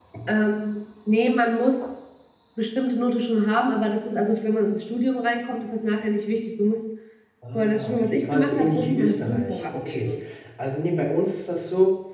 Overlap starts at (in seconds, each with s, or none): 7.5 s